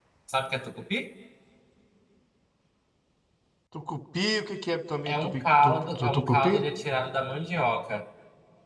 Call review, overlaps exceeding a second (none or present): present